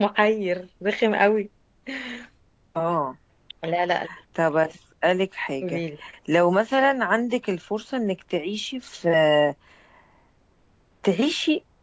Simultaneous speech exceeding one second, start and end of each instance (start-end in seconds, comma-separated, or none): none